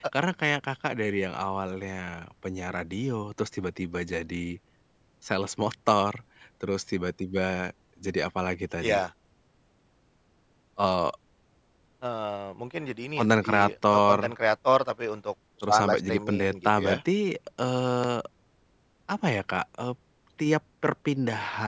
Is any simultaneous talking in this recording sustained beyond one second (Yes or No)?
Yes